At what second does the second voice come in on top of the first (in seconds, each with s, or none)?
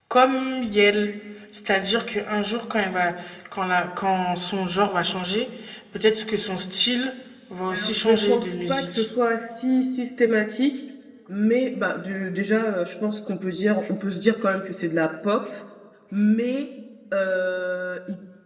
7.7 s